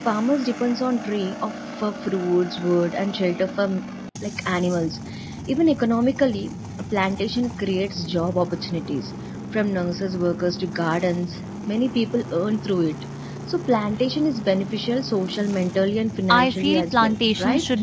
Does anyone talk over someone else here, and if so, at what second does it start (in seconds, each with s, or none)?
16.3 s